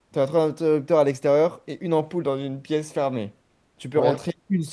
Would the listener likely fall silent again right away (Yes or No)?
Yes